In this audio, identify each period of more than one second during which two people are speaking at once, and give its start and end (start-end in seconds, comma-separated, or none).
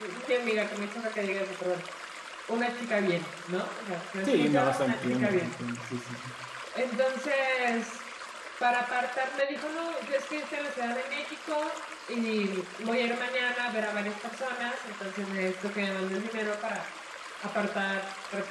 4.2-5.6